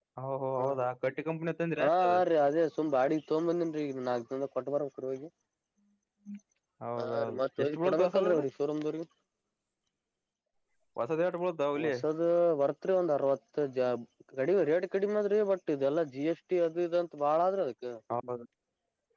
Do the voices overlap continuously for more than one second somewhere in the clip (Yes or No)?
Yes